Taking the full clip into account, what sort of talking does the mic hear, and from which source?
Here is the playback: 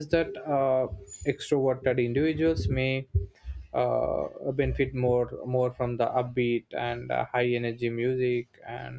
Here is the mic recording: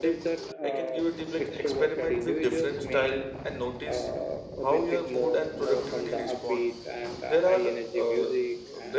both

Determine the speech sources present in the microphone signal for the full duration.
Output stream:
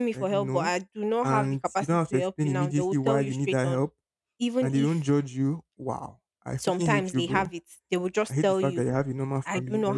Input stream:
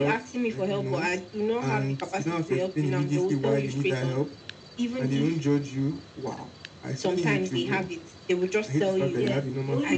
both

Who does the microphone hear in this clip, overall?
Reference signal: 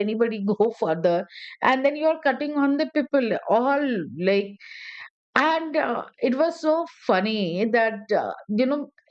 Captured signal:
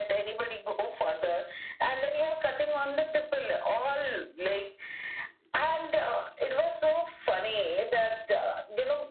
echo only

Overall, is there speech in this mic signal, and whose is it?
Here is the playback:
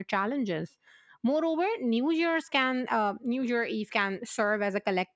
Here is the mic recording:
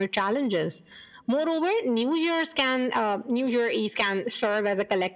echo only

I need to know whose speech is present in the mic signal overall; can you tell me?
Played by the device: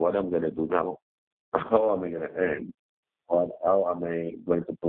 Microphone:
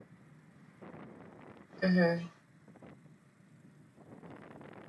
user only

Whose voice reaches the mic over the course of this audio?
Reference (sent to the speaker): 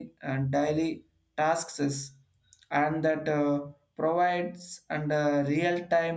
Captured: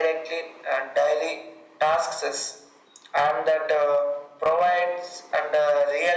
echo only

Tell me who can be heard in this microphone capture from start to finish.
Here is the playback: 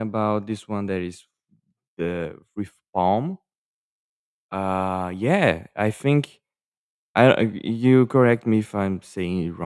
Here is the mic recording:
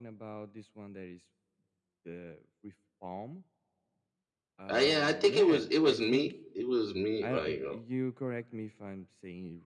both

